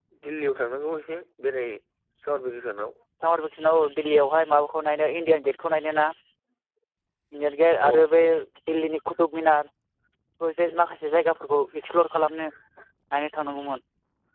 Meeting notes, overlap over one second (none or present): none